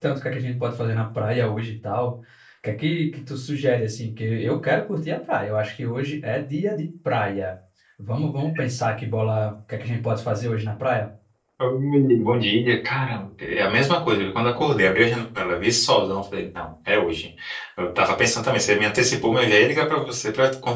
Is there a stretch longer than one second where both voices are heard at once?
No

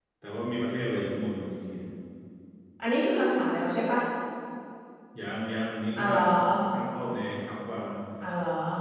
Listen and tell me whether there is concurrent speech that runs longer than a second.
No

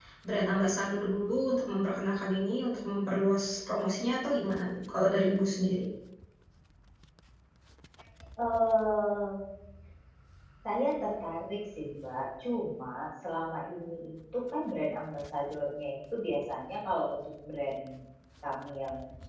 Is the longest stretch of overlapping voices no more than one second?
Yes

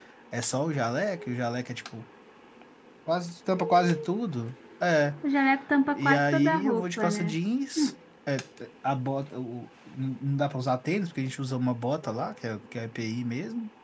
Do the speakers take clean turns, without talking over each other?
No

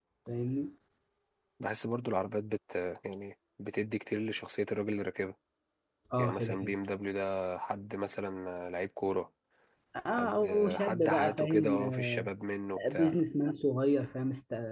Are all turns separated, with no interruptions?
No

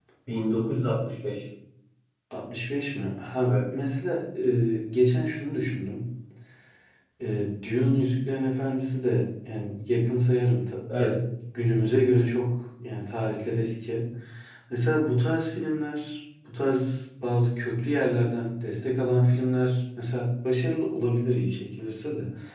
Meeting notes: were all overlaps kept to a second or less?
Yes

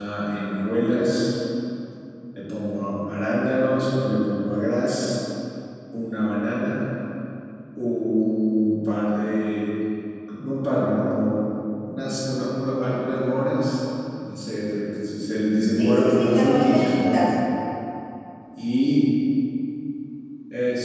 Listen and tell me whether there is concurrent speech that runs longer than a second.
Yes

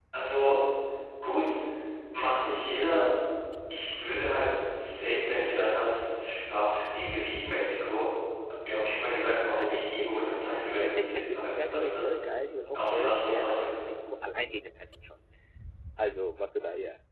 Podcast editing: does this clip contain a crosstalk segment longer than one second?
Yes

